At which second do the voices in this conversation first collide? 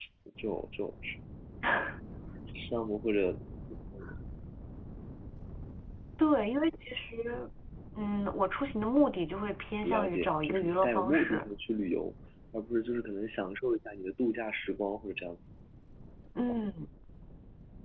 9.8 s

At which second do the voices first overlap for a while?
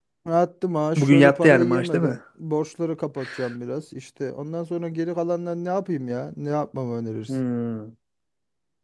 1.0 s

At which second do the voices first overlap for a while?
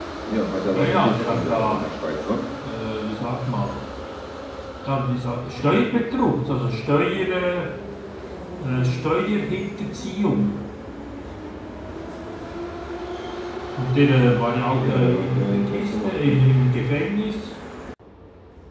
0.7 s

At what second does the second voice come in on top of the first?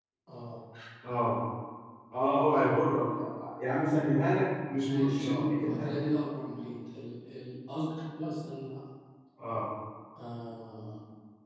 4.8 s

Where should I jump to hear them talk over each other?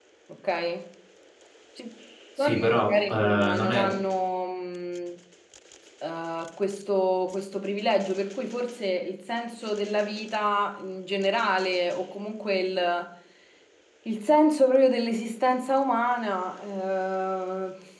2.5 s

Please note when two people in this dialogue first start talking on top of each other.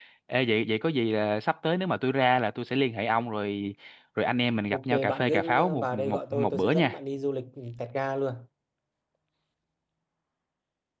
4.7 s

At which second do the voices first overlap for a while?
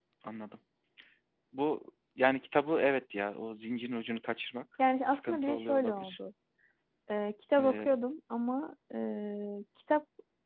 5.0 s

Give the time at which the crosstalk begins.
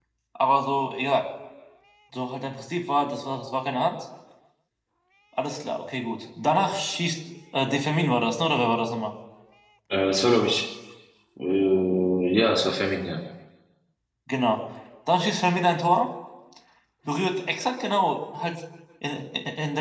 none

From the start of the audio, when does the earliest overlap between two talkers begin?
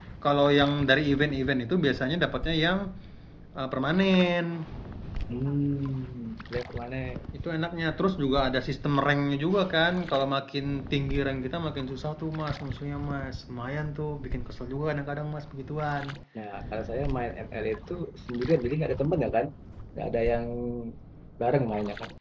none

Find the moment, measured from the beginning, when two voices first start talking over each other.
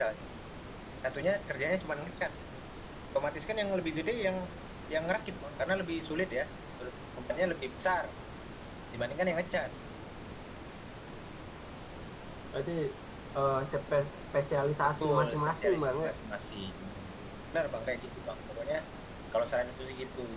14.8 s

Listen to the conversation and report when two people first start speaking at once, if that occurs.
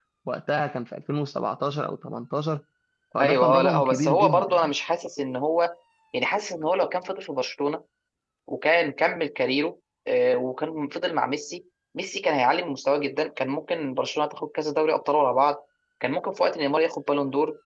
3.2 s

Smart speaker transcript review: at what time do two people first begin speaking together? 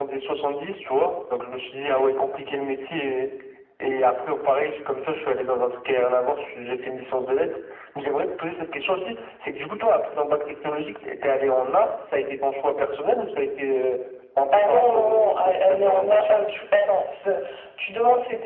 14.5 s

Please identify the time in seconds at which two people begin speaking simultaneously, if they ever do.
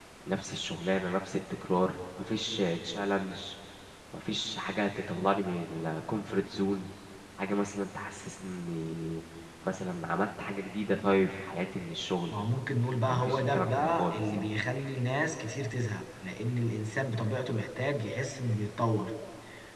13.1 s

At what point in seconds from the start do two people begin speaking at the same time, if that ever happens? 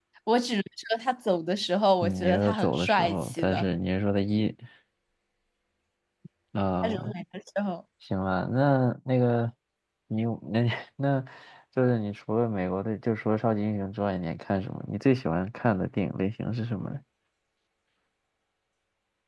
2.0 s

